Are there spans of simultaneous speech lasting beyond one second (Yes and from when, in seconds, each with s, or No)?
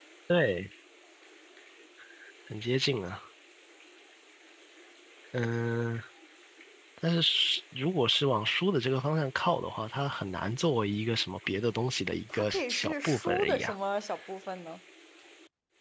Yes, from 12.3 s